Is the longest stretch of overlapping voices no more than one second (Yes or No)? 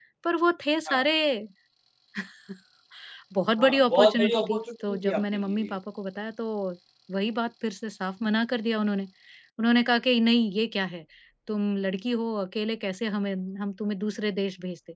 No